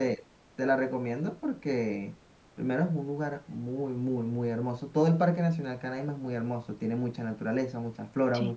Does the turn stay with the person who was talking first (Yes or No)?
Yes